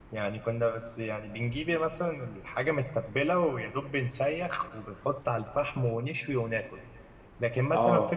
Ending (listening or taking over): listening